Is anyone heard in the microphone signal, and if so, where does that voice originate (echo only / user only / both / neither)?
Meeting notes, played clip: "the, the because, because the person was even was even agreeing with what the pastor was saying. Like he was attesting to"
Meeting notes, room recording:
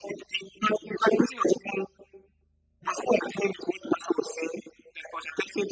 echo only